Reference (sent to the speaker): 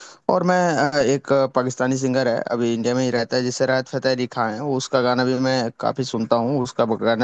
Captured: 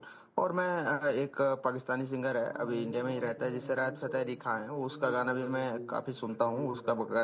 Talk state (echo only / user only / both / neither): both